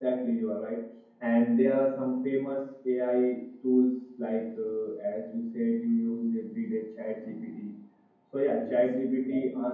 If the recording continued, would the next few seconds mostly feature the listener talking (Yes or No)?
No